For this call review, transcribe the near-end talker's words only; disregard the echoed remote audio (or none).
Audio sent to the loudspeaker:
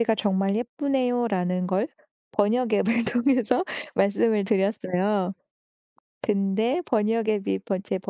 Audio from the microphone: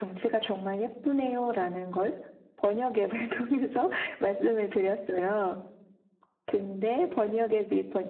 none